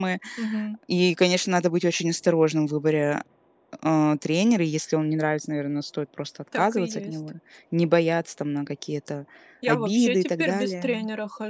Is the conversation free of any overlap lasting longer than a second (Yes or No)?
No